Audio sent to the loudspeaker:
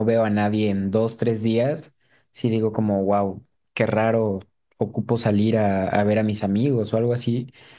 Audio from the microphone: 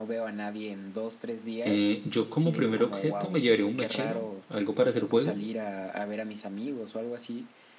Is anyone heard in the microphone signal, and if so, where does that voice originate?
both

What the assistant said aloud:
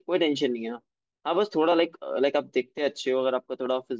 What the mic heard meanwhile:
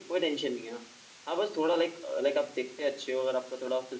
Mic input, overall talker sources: echo only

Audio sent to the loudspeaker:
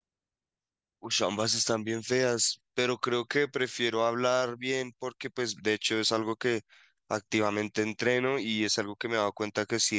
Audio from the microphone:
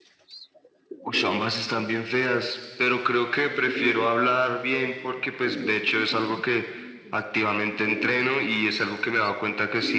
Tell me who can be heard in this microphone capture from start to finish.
echo only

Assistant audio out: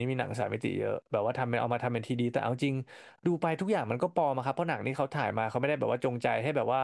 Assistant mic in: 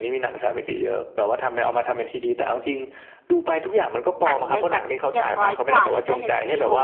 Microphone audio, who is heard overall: both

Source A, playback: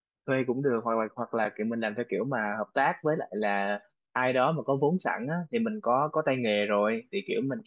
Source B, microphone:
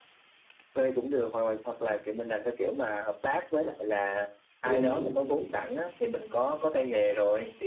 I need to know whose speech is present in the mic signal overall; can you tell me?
both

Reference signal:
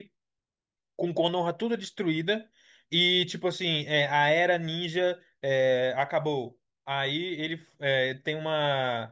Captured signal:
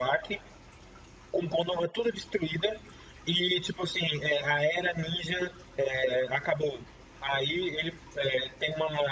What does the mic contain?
echo only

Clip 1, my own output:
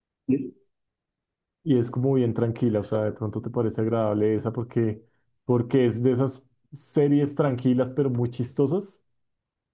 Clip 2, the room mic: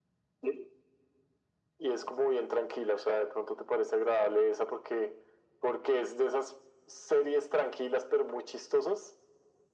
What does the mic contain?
echo only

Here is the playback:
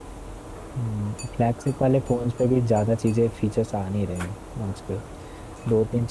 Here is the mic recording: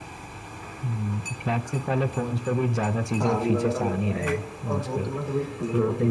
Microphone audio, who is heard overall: both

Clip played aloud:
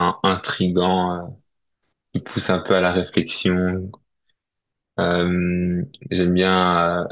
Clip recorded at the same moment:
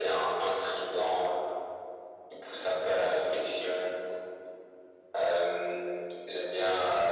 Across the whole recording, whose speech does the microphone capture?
echo only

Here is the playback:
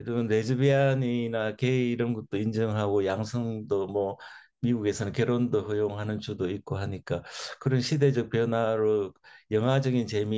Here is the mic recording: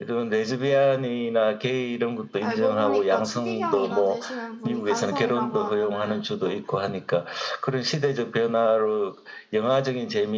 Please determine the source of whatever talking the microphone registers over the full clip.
both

